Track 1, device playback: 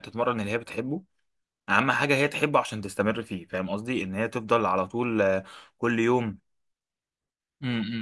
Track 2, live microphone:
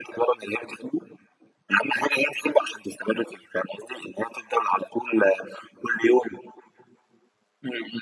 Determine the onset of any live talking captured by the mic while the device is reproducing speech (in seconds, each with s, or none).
none